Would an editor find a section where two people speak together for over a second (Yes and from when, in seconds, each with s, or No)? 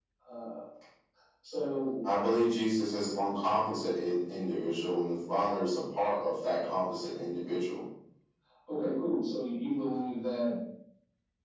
No